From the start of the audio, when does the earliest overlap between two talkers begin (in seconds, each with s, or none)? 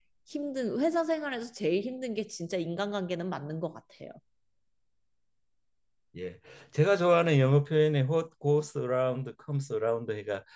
none